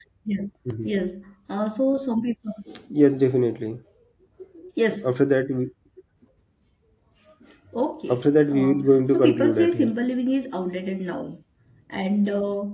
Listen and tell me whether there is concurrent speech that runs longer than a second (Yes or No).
Yes